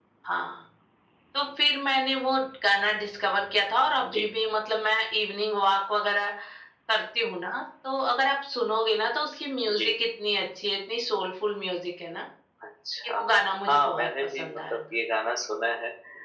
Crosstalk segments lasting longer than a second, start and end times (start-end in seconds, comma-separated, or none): 13.7-15.0